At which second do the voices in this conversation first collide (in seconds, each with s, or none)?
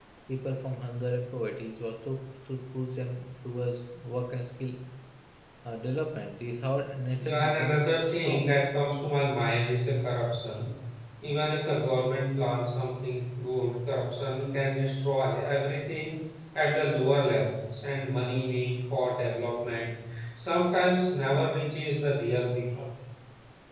7.2 s